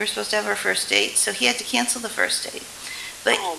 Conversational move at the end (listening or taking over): listening